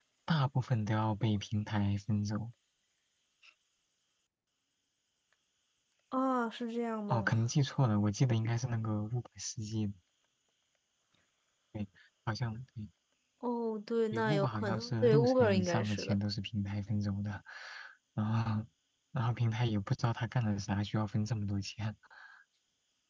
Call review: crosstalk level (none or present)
present